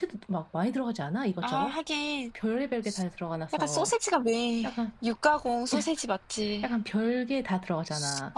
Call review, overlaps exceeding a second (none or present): none